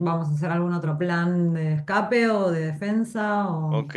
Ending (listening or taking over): taking over